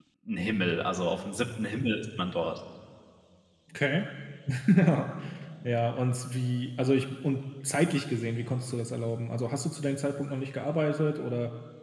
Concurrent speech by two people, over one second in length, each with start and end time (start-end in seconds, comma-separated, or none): none